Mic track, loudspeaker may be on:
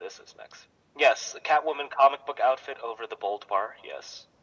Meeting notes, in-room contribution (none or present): none